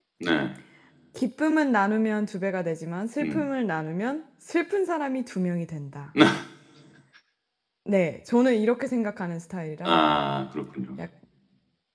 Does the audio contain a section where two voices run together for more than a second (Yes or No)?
No